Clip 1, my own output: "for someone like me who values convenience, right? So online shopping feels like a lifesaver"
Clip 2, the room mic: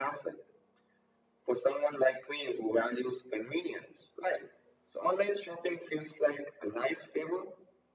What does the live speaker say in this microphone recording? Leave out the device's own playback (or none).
none